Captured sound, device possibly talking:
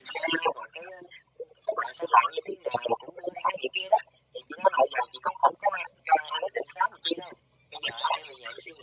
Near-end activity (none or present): none